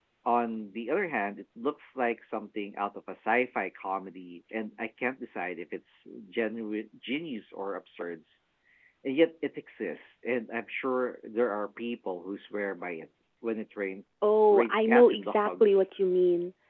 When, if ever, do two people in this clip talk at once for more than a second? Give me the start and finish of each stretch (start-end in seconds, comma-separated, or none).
14.5-15.8